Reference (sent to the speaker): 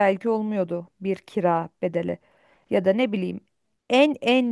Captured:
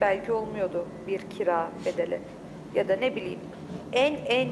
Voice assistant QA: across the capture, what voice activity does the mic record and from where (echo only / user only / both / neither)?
echo only